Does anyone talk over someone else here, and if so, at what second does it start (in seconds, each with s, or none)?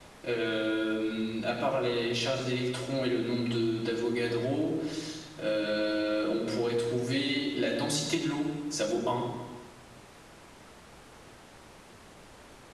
none